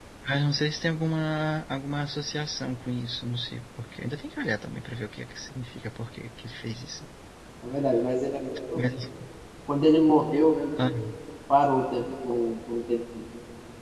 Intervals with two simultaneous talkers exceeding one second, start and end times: none

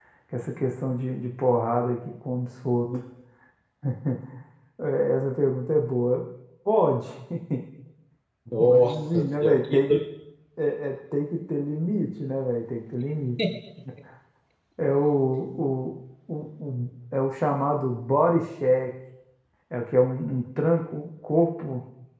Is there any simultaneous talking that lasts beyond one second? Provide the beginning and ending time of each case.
8.6-10.0

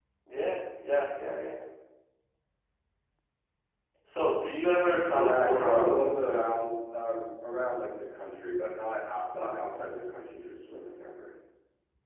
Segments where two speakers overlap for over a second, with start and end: 5.1-6.4

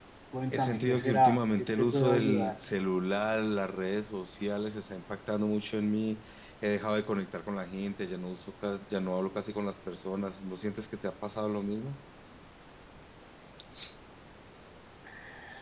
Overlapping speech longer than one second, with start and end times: 0.5-2.5

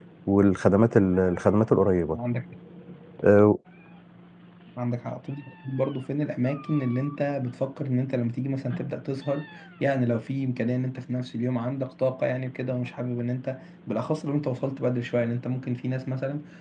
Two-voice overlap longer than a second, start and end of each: none

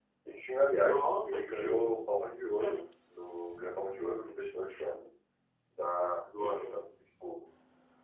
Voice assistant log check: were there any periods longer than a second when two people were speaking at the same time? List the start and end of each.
0.6-1.9

